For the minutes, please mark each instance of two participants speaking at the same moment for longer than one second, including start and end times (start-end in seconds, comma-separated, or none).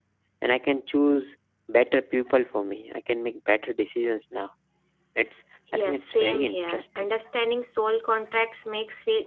5.7-7.1